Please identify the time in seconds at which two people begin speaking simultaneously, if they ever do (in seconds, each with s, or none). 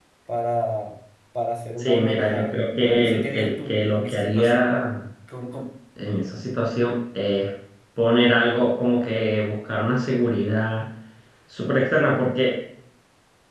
1.8 s